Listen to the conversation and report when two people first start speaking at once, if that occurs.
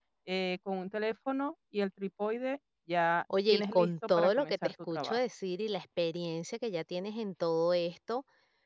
3.3 s

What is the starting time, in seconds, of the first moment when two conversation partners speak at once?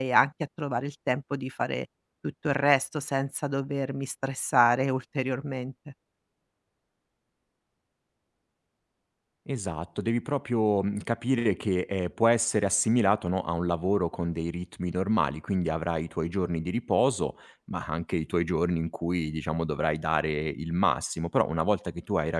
none

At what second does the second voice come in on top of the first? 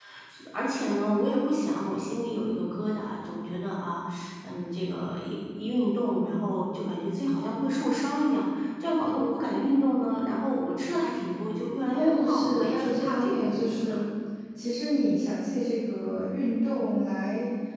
11.9 s

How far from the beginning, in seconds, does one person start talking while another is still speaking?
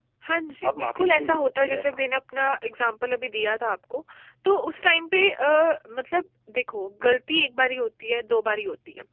0.7 s

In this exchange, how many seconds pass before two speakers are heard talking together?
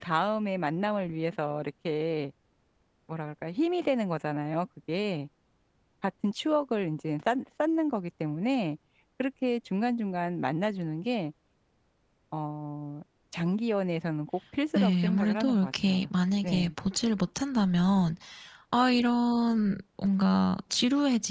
14.8 s

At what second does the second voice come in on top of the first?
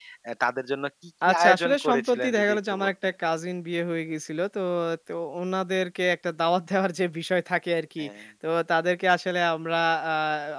1.3 s

